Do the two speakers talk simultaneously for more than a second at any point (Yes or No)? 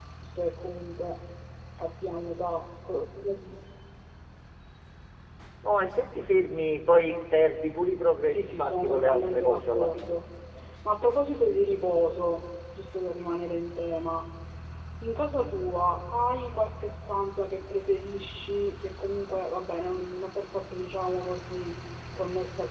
Yes